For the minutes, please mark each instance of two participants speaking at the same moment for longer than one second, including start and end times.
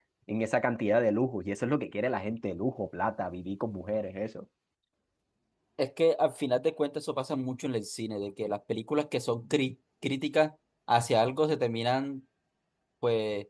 none

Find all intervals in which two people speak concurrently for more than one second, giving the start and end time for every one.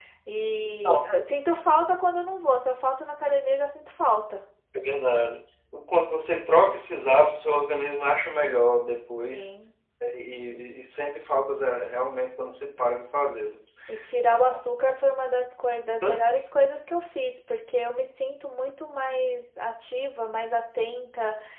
none

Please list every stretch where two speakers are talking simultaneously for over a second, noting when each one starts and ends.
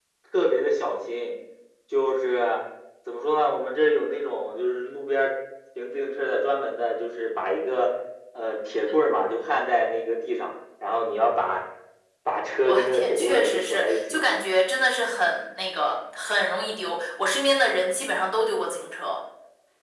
12.6-14.2

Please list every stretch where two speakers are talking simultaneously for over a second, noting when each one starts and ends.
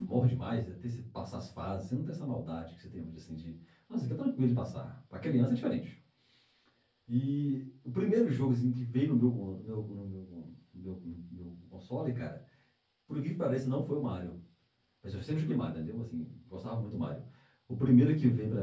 none

